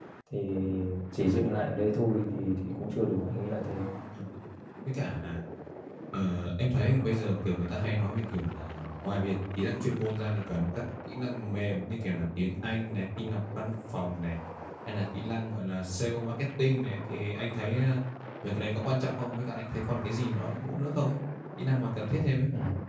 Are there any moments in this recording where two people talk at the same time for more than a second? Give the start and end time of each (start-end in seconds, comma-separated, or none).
none